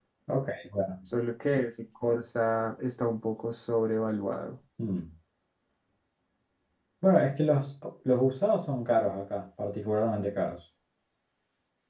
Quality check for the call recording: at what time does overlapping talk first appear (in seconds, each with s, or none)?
none